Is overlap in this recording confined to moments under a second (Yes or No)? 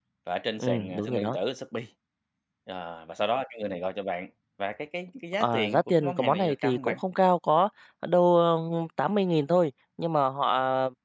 No